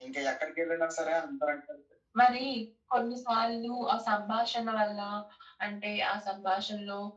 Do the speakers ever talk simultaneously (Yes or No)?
No